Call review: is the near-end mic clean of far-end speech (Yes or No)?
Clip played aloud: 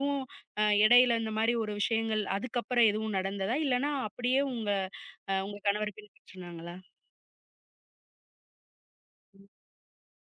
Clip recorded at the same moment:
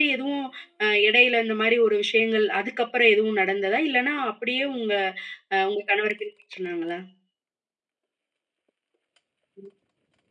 No